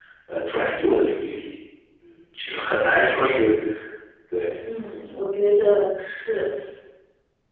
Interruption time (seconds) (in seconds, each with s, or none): none